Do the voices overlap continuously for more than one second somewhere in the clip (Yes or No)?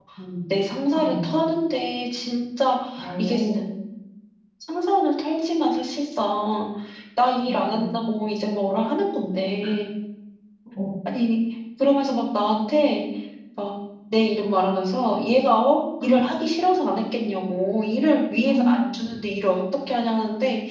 No